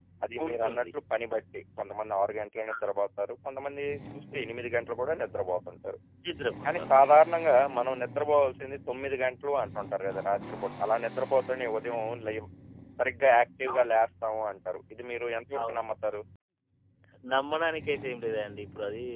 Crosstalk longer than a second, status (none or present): none